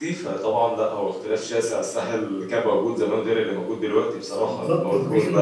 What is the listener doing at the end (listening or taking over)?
taking over